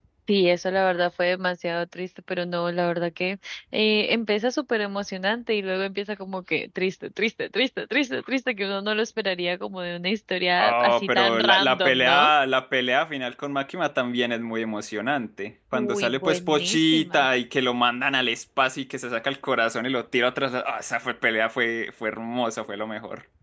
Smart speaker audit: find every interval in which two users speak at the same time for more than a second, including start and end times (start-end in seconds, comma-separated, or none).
10.6-12.3, 15.7-17.3